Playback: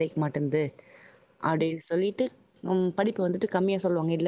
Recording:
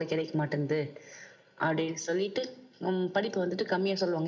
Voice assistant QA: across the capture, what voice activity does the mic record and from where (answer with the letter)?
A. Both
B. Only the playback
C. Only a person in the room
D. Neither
B